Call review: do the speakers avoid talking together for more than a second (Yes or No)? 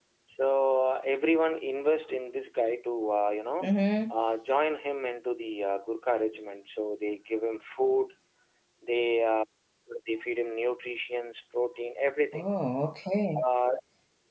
Yes